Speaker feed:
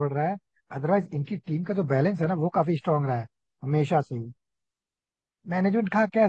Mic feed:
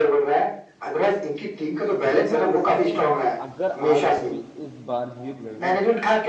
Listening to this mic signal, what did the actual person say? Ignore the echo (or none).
देखो इसमें अगर आरसीबी इस बार जीत गई ना